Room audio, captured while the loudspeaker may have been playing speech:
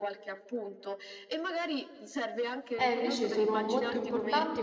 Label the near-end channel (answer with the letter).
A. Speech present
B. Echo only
A